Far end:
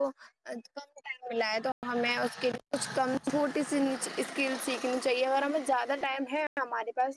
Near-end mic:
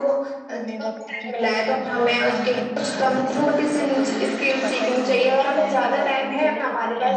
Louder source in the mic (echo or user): echo